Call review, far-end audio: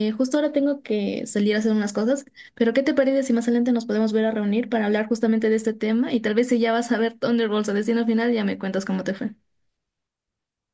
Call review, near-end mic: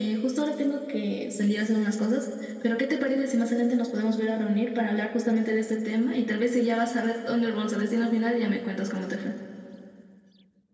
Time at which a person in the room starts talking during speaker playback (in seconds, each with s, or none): none